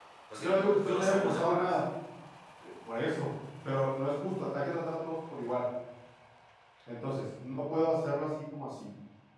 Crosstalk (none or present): present